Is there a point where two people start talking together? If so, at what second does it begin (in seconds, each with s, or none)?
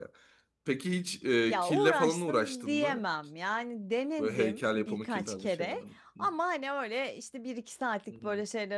1.5 s